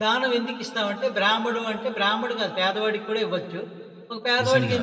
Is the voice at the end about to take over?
No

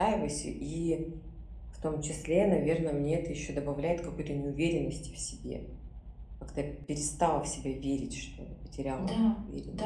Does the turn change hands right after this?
Yes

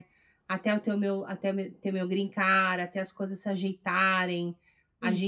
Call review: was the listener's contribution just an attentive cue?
Yes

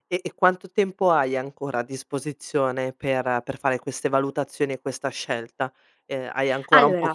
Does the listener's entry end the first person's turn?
No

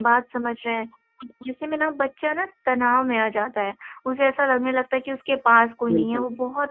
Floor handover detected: No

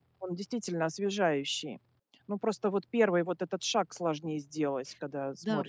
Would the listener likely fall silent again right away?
No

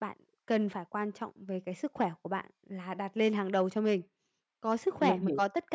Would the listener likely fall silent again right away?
Yes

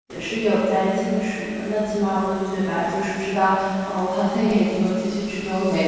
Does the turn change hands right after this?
Yes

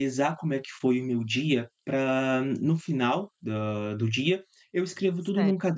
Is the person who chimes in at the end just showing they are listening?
Yes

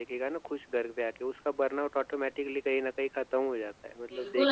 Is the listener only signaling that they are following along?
No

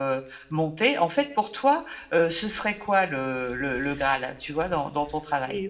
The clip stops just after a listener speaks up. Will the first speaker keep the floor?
No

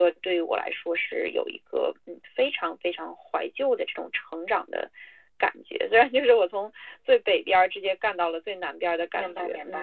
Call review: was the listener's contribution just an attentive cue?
No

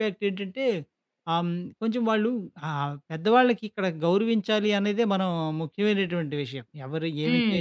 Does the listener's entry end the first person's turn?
No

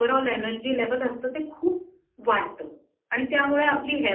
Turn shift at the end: No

